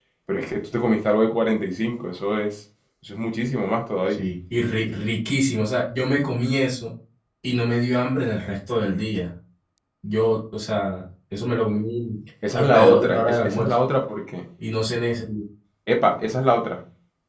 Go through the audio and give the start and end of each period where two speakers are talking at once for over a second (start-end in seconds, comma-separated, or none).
12.5-13.7